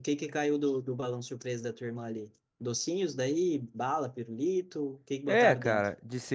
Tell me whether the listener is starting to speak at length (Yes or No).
Yes